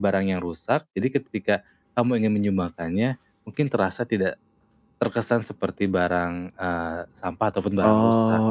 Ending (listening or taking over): taking over